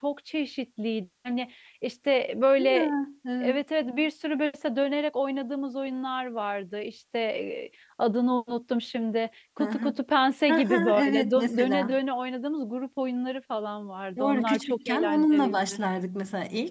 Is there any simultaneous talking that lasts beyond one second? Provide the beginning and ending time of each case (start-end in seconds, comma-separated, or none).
10.5-12.0, 14.2-15.8